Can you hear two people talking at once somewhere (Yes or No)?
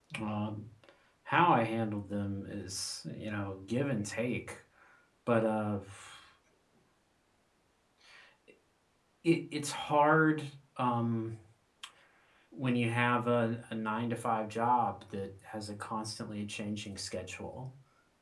No